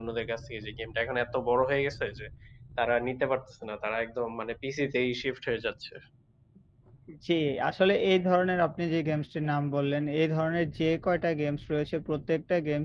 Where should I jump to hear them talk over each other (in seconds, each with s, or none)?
none